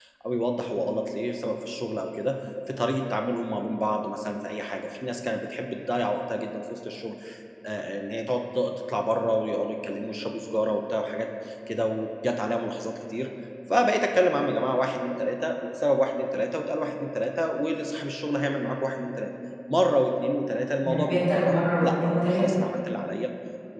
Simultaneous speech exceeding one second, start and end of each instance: 20.8-22.5

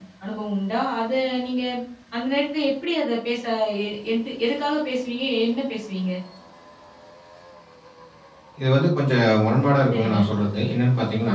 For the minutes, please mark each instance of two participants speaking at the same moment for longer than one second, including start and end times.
none

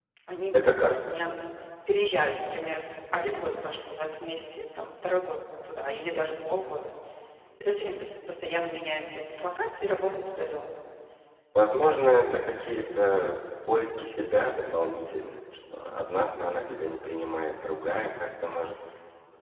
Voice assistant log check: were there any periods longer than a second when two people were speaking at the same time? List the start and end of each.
none

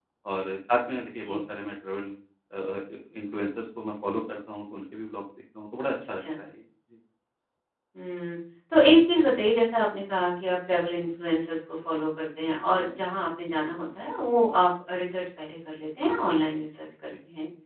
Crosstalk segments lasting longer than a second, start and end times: none

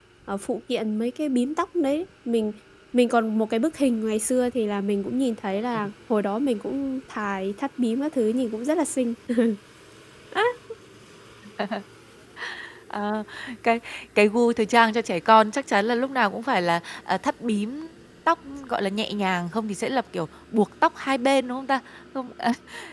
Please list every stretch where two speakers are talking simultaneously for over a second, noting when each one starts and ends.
none

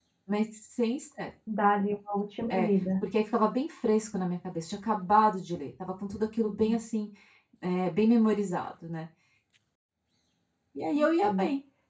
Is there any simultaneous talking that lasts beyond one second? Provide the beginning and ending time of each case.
none

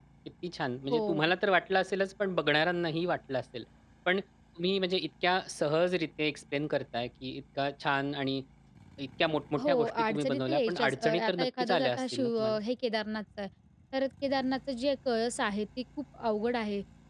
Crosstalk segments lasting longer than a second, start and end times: 9.7-12.6

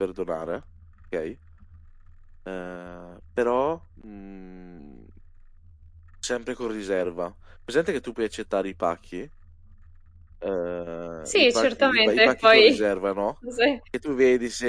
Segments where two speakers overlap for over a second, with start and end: 11.3-12.8

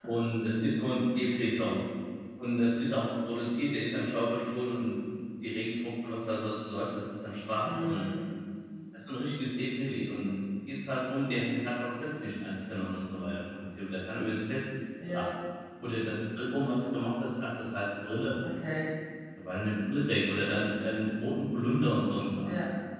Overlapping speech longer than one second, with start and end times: none

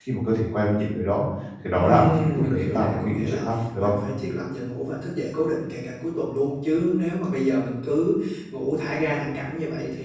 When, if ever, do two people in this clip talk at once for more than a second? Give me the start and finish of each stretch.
1.7-3.9

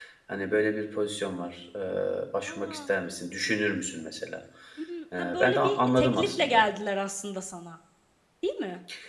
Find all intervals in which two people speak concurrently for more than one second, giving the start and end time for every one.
5.2-6.6

